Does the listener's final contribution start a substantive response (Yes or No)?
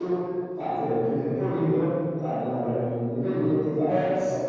Yes